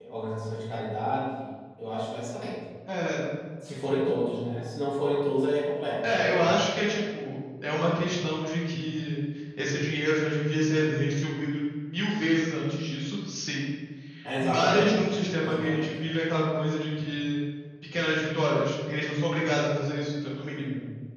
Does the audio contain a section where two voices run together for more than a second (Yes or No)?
Yes